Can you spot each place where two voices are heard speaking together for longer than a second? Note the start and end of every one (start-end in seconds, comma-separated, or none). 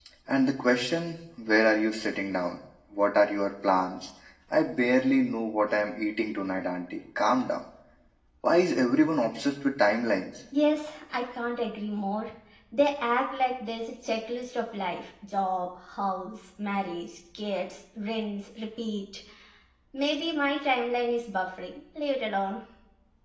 none